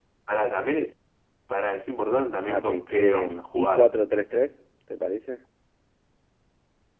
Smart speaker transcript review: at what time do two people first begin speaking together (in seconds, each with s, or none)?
2.5 s